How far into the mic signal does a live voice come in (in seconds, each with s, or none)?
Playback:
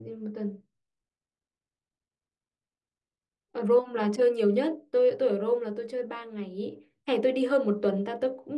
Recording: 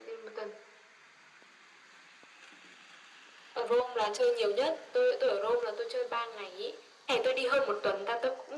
none